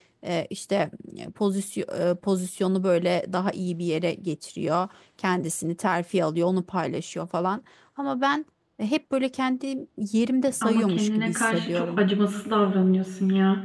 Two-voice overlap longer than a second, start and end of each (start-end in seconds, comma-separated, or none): 10.6-12.0